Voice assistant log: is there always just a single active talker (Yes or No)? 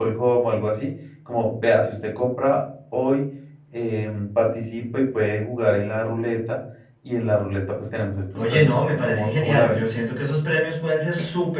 No